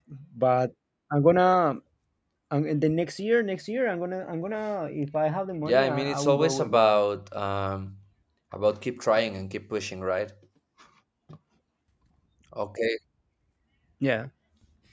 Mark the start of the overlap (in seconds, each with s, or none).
5.6 s